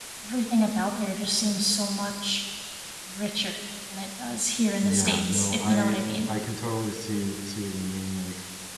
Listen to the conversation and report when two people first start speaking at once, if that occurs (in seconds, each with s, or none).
4.8 s